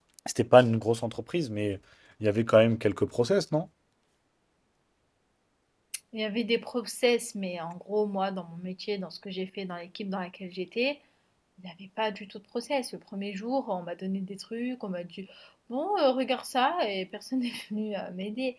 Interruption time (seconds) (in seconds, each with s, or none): none